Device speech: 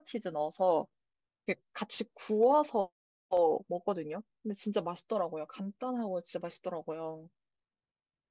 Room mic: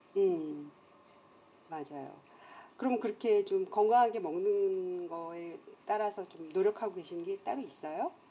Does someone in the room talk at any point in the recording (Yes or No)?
Yes